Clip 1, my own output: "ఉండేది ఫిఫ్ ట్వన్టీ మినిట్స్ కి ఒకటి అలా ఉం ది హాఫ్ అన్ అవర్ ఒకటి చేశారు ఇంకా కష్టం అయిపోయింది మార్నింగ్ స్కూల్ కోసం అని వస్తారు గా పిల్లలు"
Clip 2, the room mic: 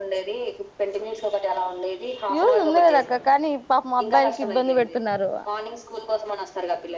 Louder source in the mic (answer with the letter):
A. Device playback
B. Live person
B